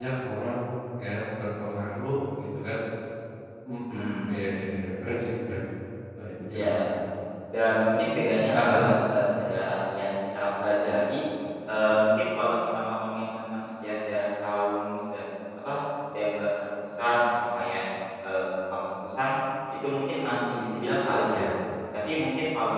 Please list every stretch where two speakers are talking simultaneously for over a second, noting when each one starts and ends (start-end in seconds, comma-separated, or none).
none